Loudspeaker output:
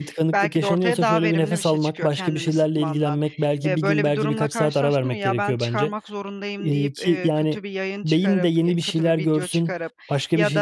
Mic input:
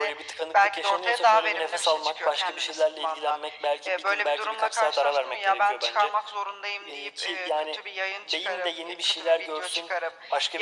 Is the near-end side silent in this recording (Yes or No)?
Yes